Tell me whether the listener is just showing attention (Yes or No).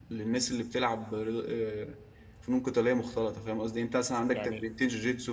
Yes